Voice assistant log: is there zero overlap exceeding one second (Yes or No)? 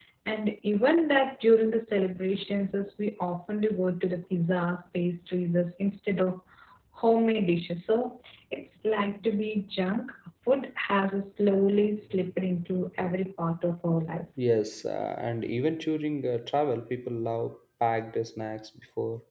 Yes